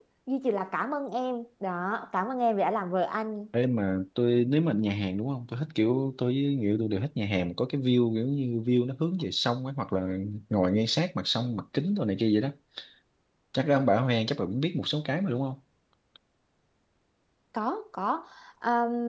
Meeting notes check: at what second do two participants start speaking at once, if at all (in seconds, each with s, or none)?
none